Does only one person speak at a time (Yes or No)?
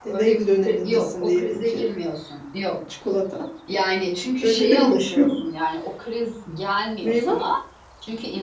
No